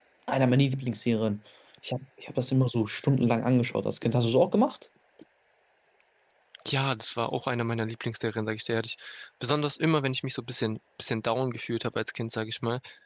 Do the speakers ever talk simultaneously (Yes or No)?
No